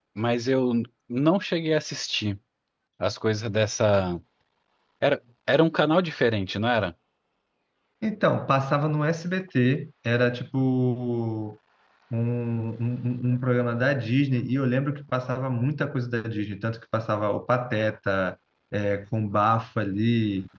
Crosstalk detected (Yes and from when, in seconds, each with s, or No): No